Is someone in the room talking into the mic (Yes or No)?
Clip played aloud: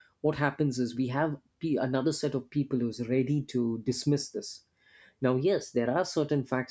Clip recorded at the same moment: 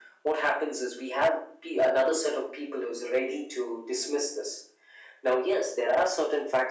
No